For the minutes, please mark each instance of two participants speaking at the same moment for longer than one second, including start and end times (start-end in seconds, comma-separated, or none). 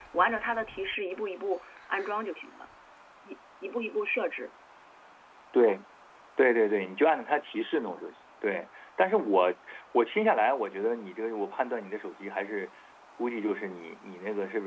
none